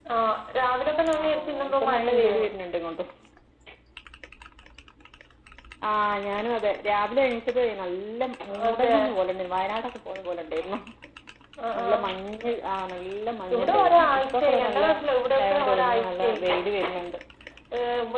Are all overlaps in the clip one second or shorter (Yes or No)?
No